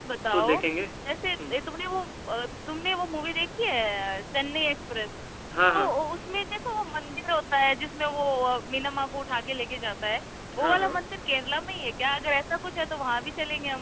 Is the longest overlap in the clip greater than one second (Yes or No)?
No